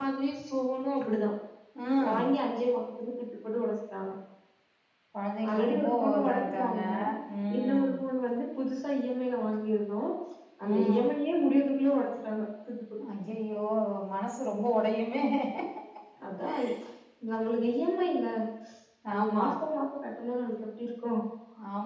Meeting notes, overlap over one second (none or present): present